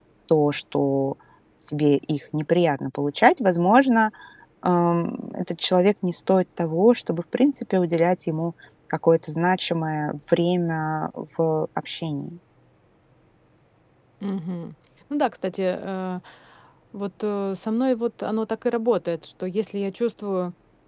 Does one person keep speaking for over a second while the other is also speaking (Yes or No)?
No